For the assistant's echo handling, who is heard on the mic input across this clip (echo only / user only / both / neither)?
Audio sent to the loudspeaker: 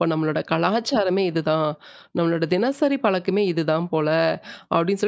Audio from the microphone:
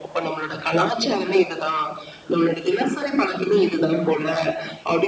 echo only